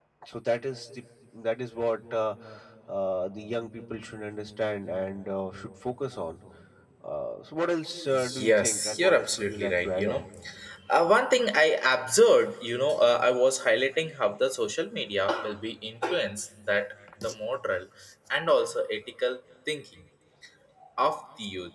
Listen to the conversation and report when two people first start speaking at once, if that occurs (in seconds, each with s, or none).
8.1 s